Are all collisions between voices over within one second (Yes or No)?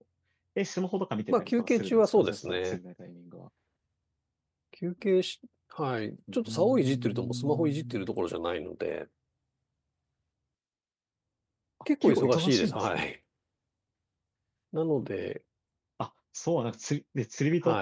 No